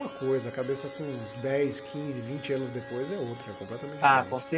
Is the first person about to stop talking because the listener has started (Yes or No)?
Yes